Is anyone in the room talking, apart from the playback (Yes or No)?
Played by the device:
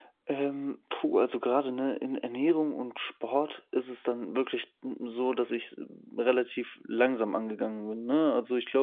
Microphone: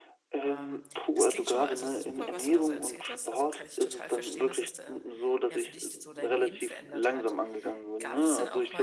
Yes